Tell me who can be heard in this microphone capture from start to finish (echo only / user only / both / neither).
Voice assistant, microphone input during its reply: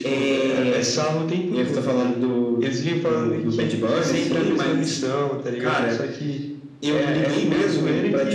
echo only